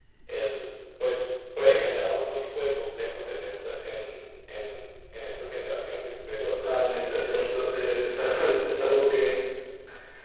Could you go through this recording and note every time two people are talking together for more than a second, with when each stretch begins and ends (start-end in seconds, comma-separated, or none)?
6.4-7.7